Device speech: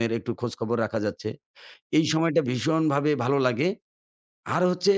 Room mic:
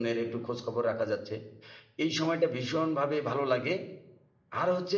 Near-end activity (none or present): none